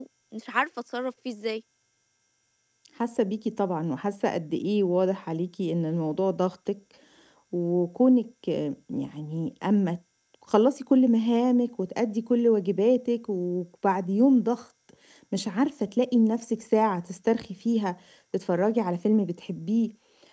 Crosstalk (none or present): none